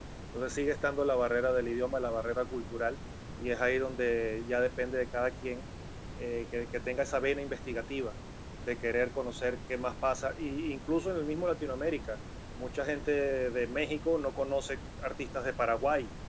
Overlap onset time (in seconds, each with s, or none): none